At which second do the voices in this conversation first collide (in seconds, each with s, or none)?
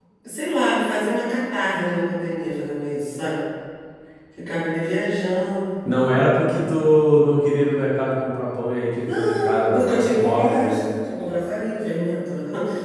9.0 s